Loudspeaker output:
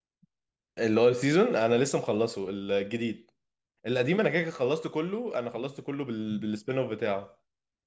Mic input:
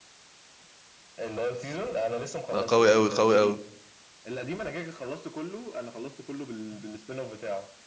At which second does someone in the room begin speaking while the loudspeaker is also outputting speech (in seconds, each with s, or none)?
2.5 s